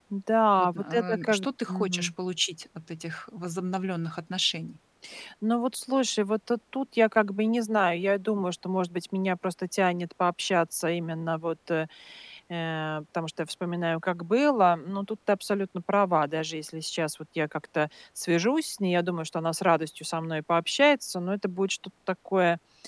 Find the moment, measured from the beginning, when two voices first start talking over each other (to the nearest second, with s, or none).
1 s